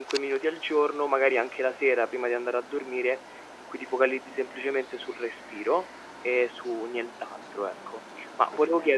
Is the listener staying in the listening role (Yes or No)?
Yes